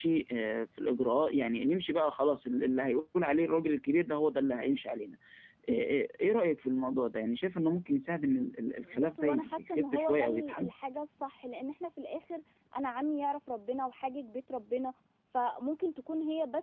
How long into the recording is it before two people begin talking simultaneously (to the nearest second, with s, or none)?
9 s